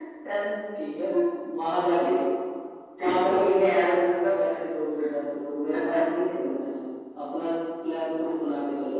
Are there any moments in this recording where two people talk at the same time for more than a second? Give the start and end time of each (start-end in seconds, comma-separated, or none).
3.1-4.4